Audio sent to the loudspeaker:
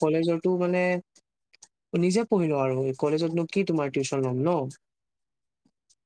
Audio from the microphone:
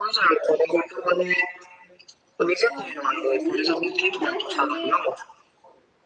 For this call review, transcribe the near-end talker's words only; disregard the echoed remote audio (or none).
ঘৰত থাকিয়ে পঢ়িম, পঢ়িম মানে কালি ছানডে